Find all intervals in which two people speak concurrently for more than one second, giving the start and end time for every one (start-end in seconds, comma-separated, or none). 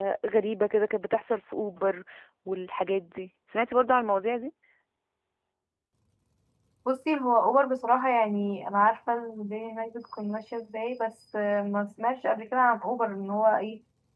none